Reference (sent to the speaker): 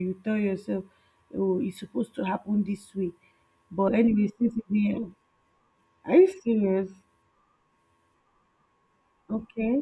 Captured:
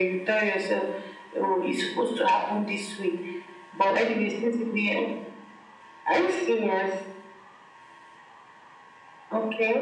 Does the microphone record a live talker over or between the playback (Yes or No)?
No